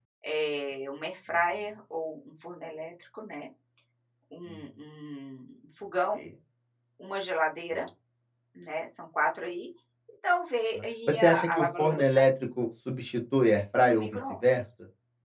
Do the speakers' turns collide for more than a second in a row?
Yes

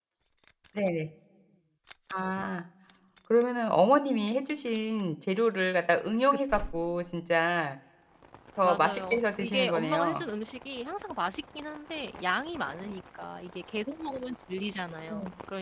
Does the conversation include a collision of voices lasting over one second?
Yes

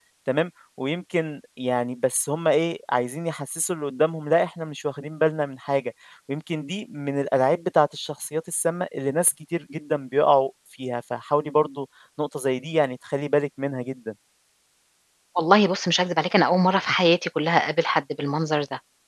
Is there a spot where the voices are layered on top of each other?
No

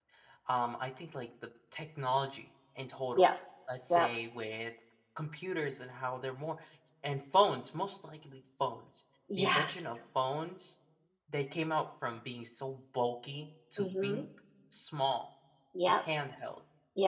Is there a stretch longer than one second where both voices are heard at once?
No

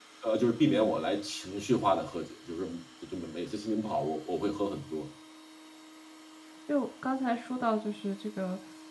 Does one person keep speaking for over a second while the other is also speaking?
No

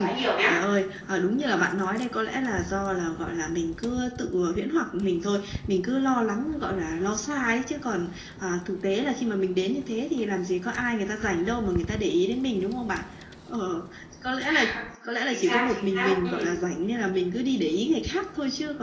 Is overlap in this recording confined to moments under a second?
No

